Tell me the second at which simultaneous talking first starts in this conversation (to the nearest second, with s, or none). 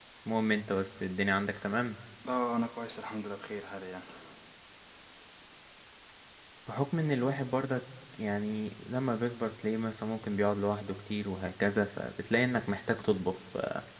none